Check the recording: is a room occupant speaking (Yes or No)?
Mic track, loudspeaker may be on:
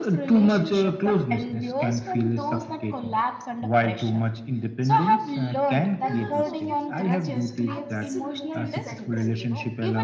Yes